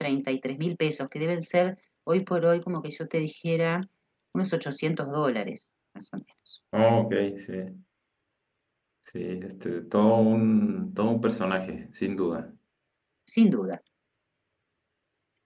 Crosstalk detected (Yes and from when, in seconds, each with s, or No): No